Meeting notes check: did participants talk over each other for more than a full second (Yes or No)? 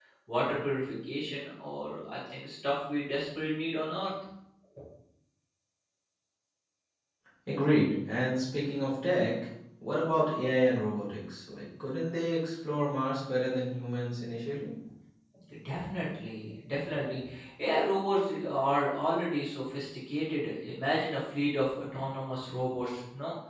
No